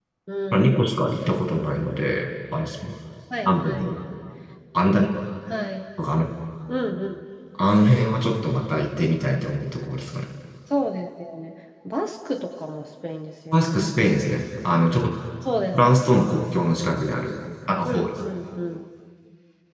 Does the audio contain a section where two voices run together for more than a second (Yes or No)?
No